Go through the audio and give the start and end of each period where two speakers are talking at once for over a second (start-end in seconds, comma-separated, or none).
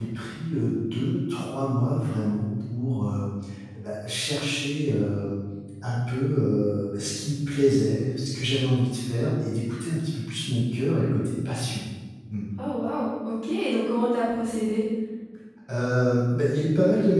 none